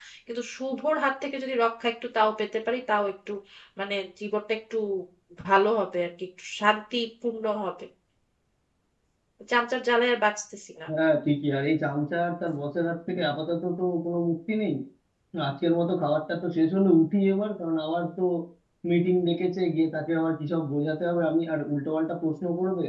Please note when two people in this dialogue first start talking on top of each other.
none

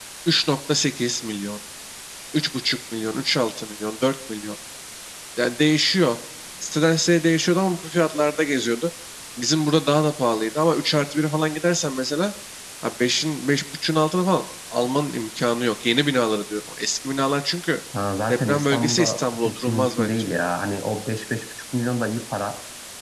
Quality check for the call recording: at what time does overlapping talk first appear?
18.3 s

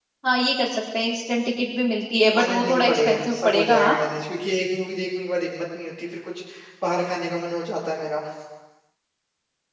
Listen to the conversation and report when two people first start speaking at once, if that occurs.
2.3 s

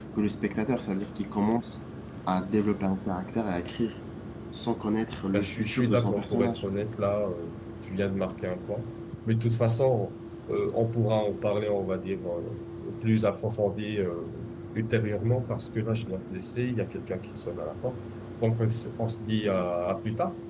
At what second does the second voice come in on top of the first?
5.3 s

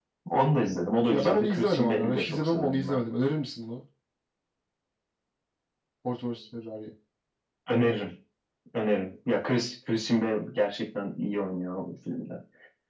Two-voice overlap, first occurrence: 1.1 s

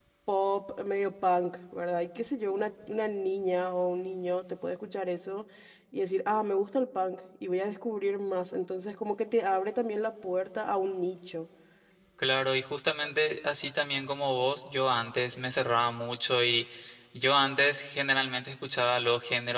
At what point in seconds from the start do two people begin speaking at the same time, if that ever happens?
none

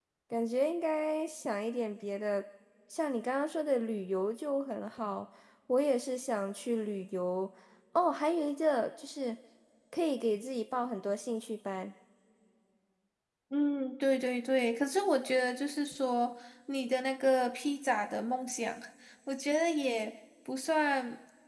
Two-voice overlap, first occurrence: none

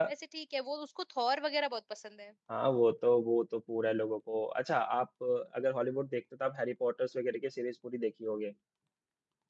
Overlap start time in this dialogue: none

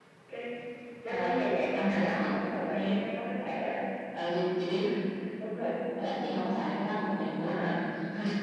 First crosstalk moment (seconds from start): 1.1 s

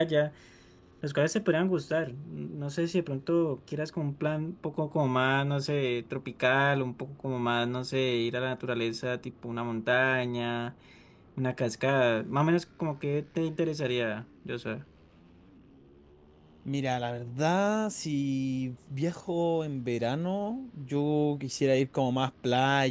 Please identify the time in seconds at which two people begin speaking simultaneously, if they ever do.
none

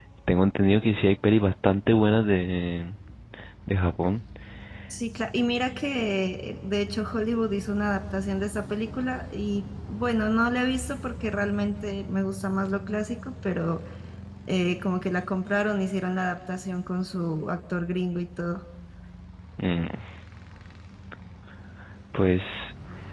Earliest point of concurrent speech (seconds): none

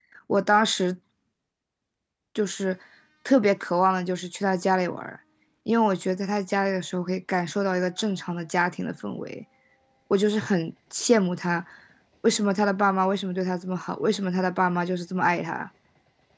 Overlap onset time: none

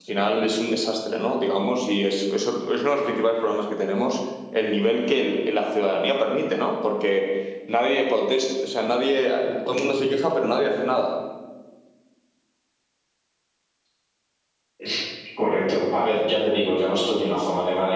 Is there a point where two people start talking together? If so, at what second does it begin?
none

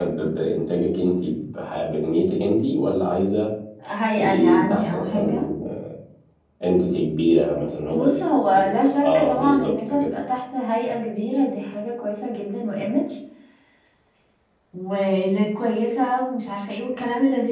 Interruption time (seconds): 4.2 s

